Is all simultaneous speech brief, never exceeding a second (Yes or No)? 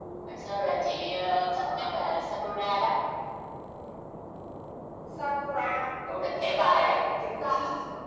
Yes